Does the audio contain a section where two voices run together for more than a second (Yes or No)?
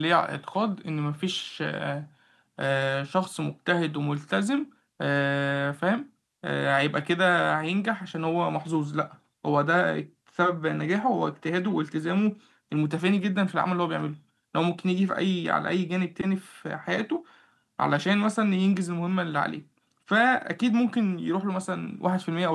No